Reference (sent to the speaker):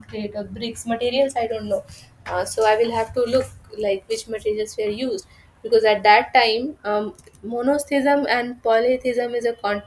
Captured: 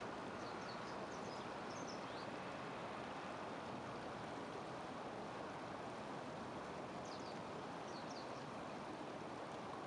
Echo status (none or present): none